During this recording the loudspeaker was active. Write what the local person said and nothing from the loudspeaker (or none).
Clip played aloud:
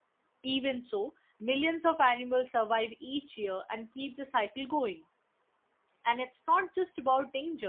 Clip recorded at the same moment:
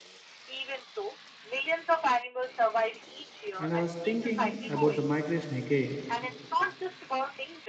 And I was thinking about the migration again.